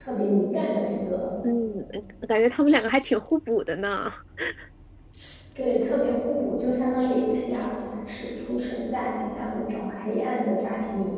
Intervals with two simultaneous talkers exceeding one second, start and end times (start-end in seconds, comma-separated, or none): none